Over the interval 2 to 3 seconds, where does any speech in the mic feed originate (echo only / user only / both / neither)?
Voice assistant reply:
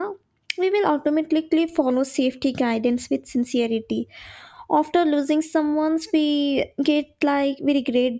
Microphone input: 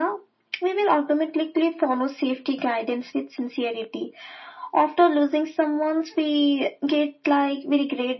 echo only